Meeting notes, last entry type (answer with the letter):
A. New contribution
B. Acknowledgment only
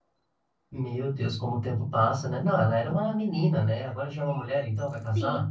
A